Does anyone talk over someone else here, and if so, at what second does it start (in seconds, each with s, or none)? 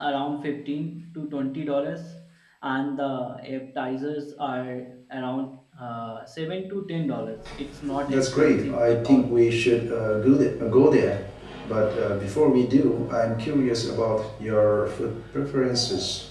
8.1 s